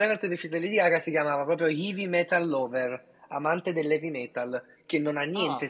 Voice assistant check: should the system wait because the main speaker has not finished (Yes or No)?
Yes